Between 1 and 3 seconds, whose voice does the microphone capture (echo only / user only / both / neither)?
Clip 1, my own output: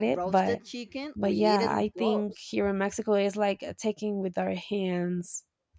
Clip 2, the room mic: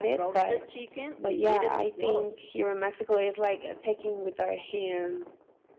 echo only